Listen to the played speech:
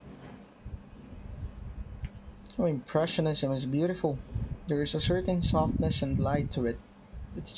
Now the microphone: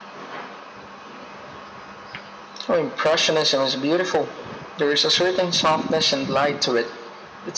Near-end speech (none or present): none